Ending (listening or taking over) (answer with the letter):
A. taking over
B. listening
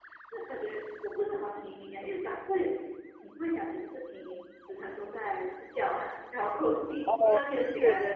B